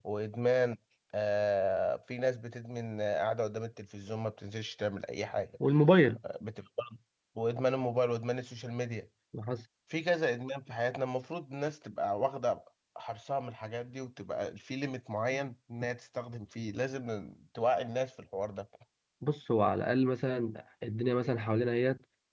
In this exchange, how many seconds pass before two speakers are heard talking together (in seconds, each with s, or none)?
none